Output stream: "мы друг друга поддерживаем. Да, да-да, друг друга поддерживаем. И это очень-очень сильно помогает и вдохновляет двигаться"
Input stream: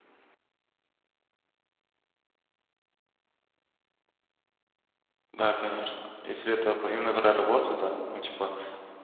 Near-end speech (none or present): present